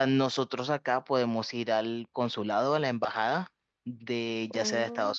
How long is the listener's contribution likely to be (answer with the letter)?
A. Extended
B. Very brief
B